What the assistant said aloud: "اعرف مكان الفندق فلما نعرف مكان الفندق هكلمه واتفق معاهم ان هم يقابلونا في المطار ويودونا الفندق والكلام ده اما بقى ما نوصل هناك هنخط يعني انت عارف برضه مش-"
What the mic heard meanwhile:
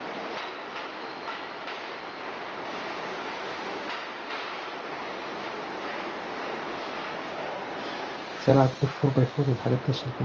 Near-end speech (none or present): present